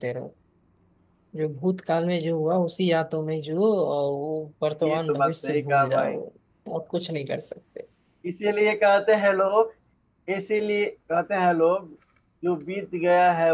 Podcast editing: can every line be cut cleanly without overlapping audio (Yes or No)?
No